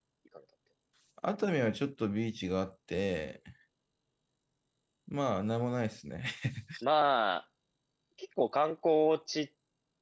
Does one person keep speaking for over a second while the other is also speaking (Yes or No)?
No